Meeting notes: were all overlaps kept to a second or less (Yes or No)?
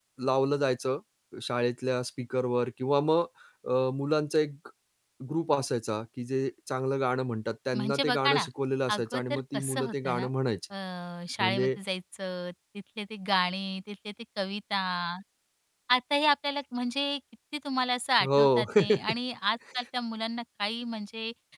No